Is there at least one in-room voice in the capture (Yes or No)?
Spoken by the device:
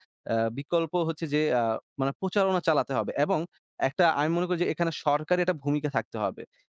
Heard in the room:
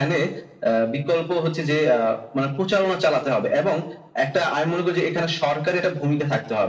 No